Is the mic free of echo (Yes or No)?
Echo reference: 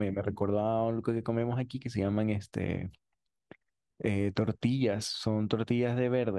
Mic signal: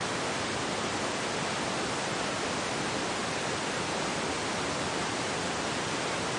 Yes